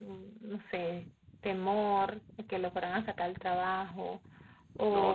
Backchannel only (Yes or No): Yes